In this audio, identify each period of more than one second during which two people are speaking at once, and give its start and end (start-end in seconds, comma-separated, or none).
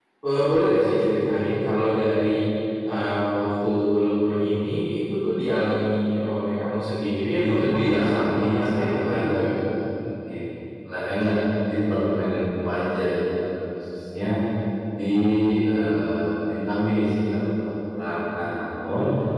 7.3-9.4